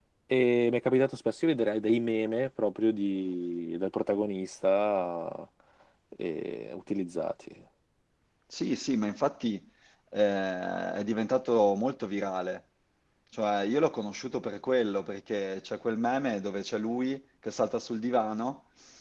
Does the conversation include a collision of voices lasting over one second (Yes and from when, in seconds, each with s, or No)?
No